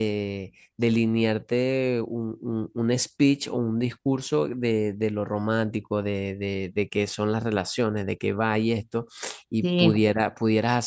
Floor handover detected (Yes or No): No